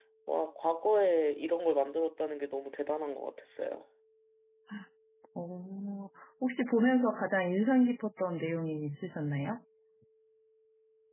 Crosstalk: none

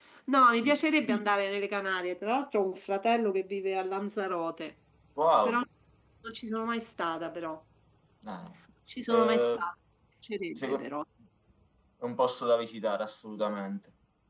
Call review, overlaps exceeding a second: none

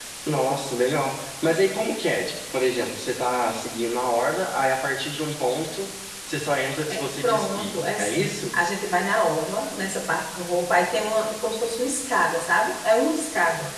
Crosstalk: present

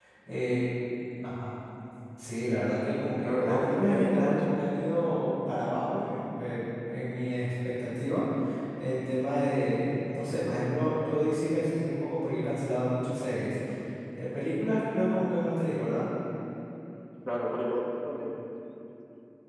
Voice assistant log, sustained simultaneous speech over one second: present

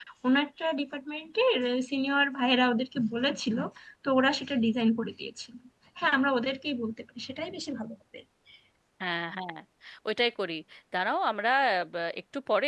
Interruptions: none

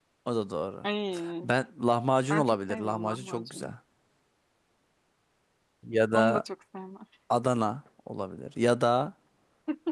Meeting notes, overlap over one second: present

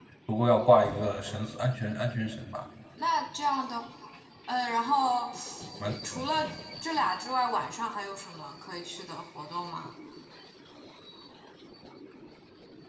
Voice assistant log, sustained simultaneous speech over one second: none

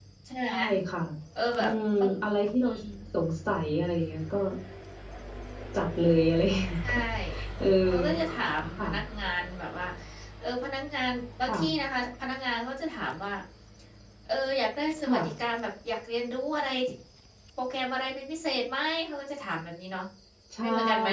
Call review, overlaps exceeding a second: none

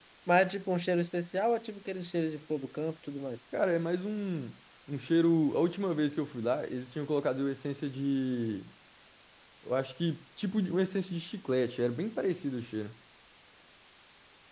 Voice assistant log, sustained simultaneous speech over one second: none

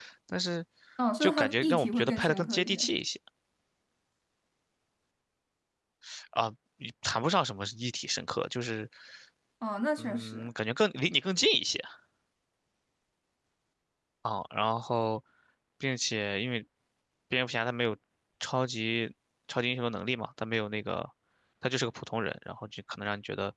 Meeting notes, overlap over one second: present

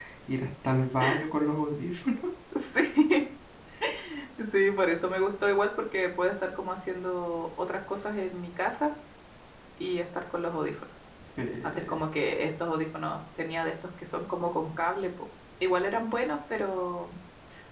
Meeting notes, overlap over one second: none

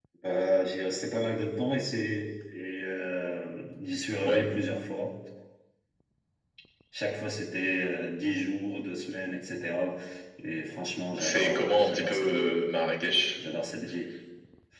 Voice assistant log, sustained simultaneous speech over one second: present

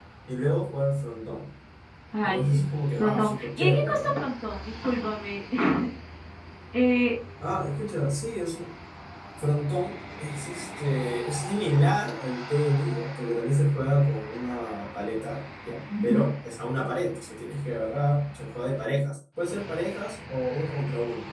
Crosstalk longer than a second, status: present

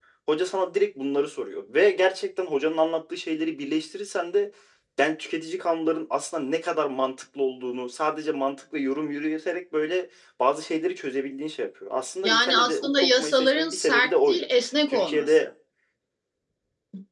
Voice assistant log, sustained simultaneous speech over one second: present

